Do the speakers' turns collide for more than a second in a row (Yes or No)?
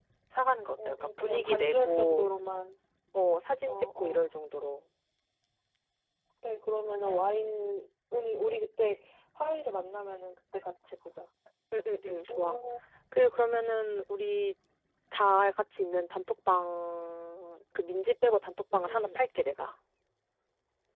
Yes